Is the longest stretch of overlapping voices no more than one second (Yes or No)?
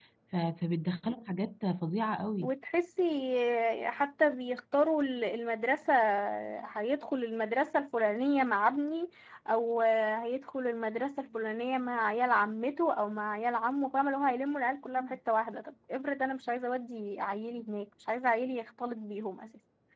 Yes